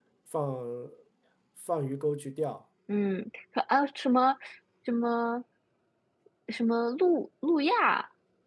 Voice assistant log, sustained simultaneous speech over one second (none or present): none